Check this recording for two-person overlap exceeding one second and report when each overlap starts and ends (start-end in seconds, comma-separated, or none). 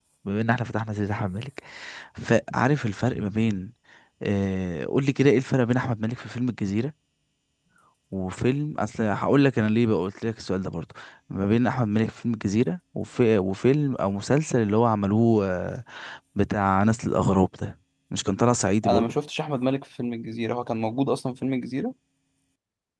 none